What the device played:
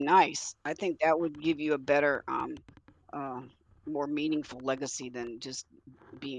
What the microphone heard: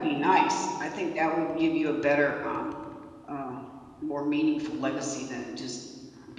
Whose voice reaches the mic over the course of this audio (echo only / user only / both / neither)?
echo only